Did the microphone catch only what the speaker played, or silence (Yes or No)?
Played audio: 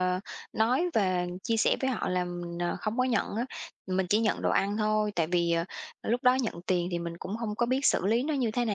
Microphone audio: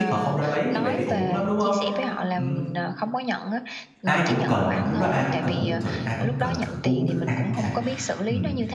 No